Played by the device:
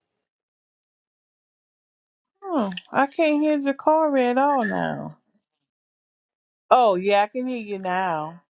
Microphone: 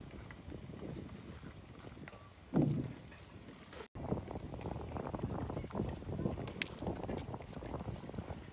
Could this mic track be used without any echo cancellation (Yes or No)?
Yes